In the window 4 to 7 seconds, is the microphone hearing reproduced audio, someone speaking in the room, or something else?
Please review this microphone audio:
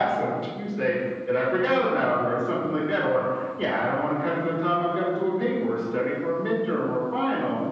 echo only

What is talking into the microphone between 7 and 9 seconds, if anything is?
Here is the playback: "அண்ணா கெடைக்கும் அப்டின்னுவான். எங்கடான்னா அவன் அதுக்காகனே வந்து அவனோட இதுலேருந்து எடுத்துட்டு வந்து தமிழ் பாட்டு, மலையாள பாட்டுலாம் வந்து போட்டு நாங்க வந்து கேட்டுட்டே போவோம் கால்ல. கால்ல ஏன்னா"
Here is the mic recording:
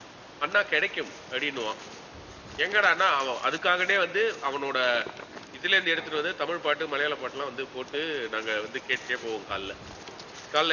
echo only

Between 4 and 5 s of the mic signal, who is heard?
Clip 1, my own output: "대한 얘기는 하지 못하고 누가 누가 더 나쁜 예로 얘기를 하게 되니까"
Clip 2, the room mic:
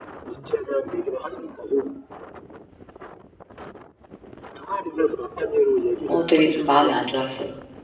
echo only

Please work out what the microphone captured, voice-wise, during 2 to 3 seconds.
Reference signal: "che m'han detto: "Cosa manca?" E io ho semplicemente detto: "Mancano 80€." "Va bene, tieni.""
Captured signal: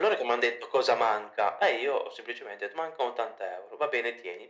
echo only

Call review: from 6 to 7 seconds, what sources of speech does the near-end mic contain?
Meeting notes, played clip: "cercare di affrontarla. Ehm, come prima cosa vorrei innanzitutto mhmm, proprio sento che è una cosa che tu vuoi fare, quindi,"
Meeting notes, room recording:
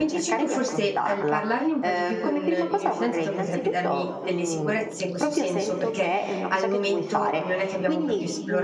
both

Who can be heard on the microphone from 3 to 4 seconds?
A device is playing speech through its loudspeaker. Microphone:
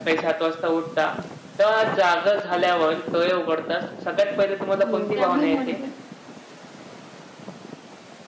echo only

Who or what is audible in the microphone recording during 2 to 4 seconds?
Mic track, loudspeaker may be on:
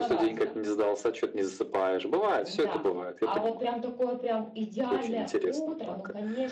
both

